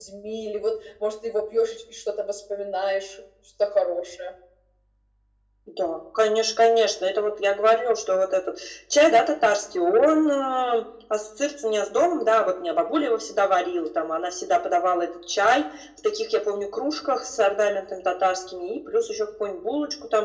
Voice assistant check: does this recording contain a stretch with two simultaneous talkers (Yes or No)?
No